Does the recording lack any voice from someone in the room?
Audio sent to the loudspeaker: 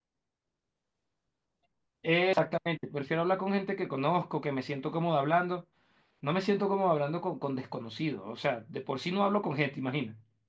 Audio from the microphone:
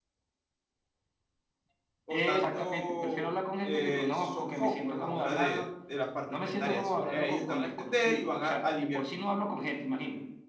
No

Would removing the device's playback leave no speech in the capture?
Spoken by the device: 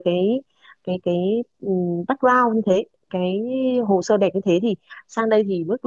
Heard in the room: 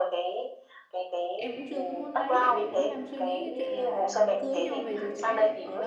No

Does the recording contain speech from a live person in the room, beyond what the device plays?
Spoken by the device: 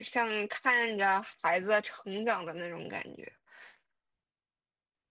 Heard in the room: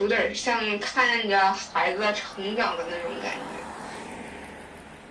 No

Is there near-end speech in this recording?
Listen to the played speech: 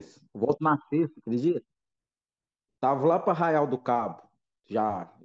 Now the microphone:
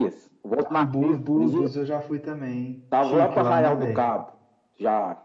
Yes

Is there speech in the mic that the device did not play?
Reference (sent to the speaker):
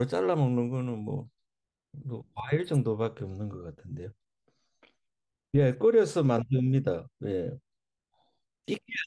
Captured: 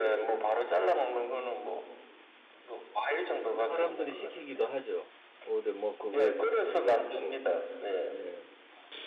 Yes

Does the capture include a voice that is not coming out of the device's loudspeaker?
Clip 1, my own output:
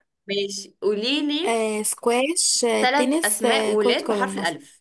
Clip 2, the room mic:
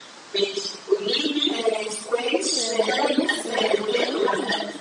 Yes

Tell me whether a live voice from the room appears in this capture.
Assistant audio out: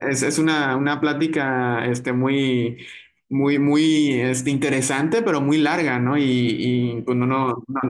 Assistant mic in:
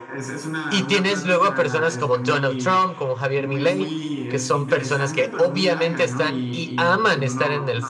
Yes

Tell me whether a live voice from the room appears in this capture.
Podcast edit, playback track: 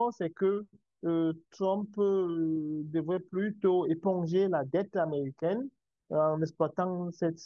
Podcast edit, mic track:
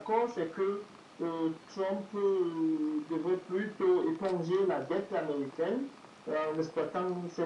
No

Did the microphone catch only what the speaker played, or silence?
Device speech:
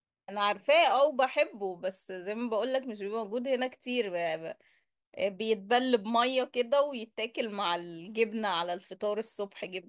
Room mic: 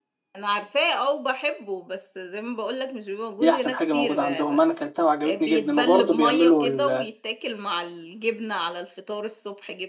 No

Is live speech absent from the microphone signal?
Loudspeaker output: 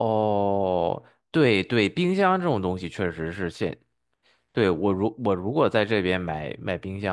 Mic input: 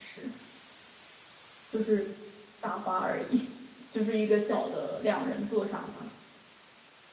No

